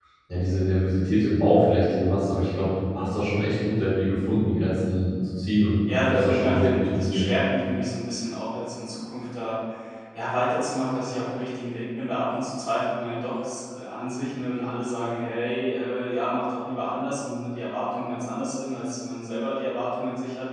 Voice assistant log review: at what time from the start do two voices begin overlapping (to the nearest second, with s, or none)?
6 s